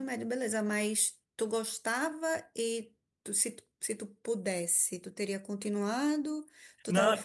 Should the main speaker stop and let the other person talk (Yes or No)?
No